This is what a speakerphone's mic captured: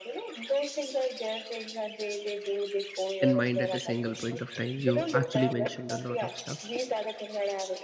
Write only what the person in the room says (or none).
in mind at a single point of time. You actually mentioned a lot of stuff.